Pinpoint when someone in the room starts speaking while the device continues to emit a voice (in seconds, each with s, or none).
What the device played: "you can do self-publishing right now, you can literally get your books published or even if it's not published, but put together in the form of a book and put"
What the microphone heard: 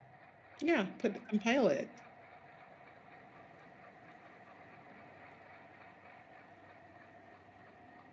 0.6 s